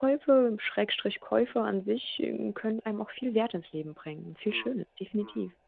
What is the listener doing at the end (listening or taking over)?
taking over